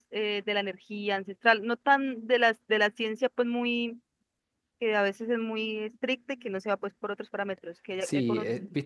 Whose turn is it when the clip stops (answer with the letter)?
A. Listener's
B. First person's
A